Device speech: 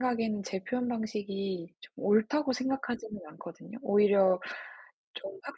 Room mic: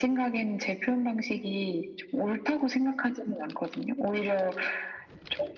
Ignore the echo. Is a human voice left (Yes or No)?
No